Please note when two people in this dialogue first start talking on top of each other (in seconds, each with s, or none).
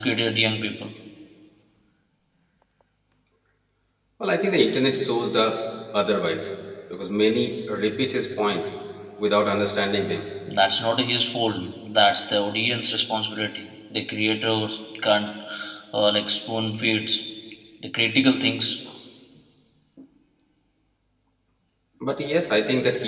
none